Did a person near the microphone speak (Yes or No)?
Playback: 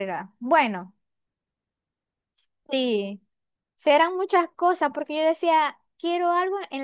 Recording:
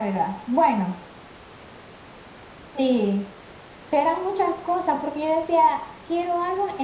No